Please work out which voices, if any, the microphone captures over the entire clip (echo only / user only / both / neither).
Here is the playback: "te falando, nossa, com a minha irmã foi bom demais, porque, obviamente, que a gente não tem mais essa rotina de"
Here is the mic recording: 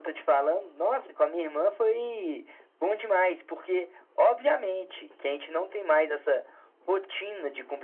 echo only